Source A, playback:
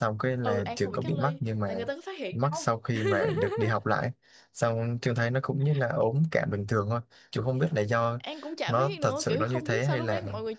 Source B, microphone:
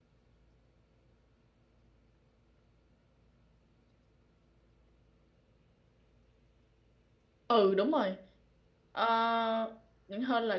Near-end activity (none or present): present